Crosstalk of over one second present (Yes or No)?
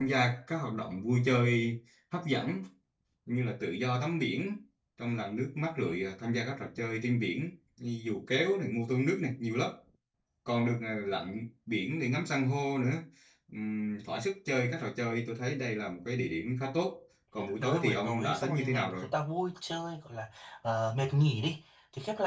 Yes